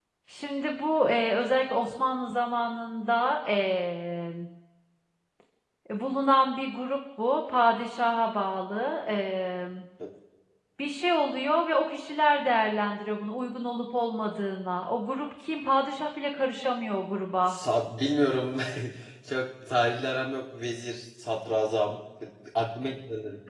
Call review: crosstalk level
none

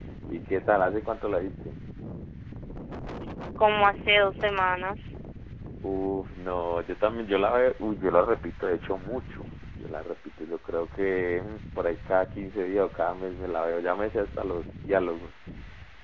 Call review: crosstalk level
none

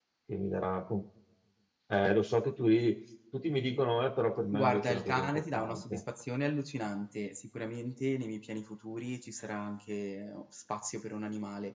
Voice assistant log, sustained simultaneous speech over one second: present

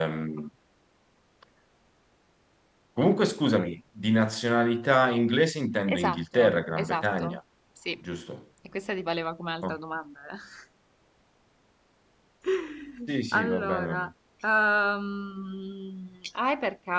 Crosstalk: present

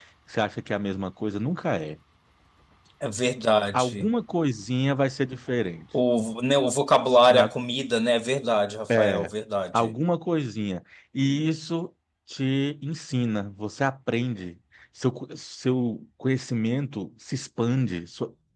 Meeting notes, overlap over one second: none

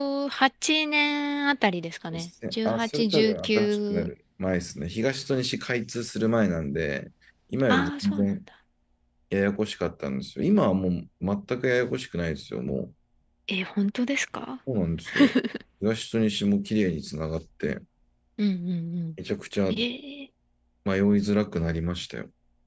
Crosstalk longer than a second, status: present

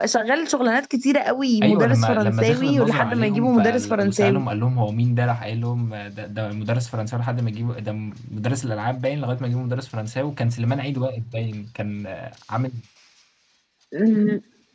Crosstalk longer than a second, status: present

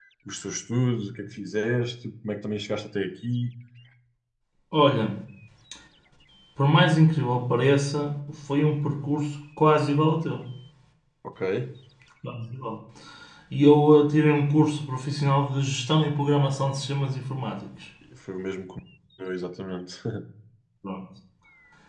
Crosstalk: none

